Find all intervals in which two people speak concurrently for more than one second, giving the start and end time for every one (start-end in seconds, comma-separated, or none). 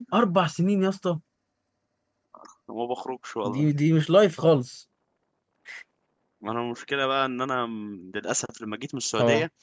none